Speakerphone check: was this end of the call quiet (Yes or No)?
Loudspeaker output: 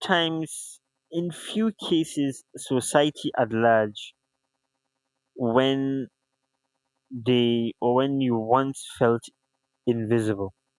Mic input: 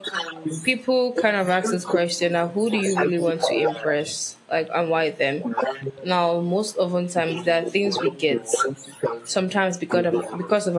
No